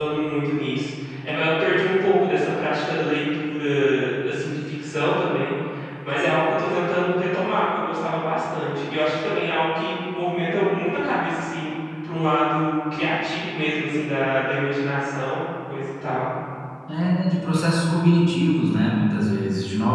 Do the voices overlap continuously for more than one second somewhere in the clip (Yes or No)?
No